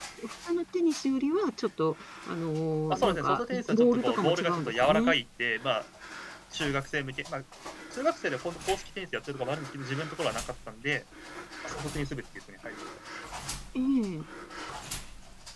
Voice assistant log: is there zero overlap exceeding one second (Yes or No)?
No